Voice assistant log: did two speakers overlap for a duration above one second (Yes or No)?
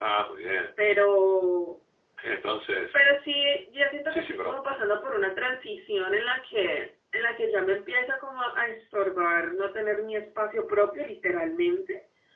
No